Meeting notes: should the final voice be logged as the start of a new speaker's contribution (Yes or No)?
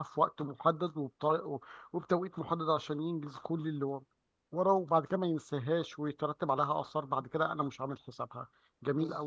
Yes